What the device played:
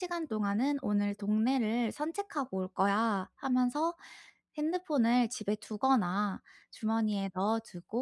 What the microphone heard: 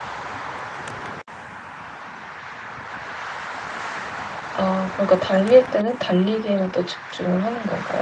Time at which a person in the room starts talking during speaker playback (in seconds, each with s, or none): 4.5 s